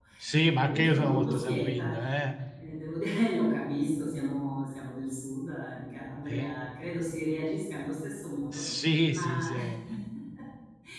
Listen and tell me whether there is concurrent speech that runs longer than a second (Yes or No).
Yes